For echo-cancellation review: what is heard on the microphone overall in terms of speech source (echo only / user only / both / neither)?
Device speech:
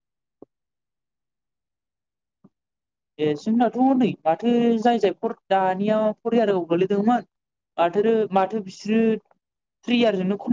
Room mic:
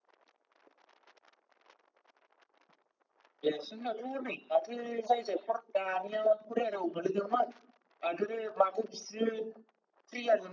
echo only